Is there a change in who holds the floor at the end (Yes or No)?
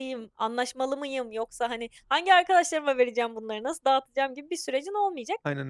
No